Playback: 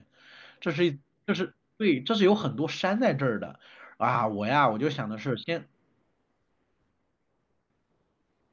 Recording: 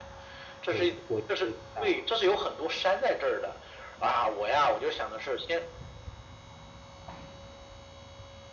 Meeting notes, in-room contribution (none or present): present